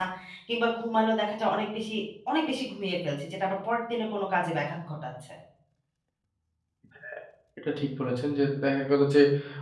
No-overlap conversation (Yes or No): Yes